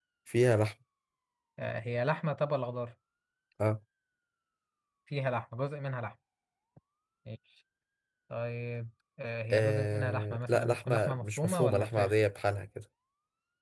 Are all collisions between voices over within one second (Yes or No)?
No